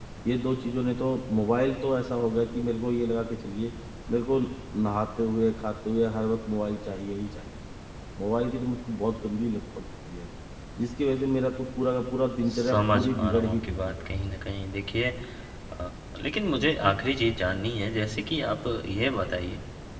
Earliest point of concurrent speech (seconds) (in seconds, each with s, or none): 12.5 s